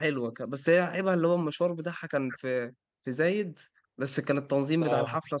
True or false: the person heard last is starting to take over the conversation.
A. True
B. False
B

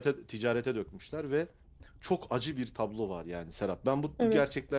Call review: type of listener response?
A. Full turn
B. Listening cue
B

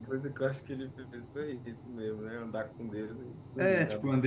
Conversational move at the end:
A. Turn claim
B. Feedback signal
A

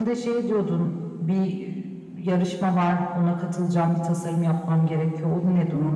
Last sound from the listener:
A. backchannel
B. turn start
B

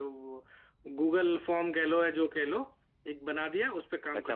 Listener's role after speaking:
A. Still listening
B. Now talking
B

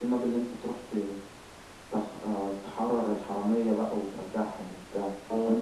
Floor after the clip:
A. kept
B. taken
B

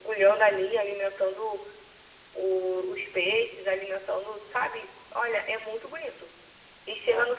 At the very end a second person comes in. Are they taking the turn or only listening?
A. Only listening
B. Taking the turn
A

